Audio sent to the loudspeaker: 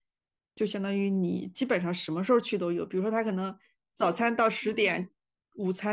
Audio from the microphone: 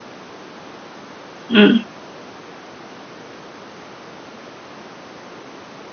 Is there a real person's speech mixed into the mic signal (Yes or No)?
Yes